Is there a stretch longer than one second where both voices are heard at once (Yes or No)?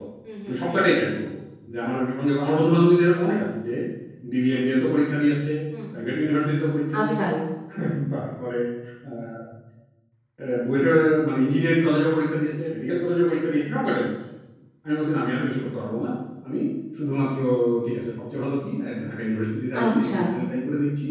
No